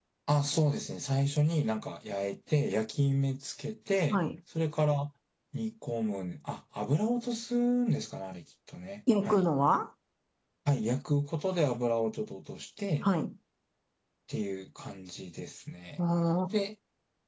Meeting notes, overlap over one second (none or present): none